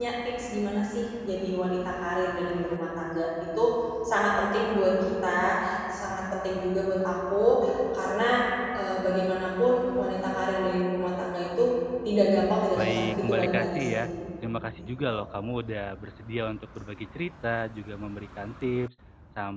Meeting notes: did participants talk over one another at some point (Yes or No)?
Yes